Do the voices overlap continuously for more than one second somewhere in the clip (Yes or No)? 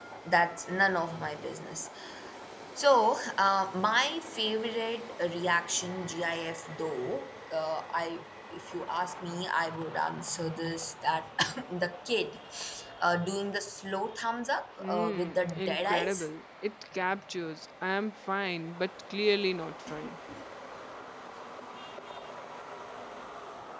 Yes